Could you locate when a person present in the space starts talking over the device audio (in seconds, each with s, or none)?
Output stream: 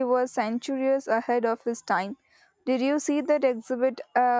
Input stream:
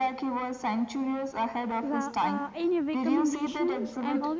1.8 s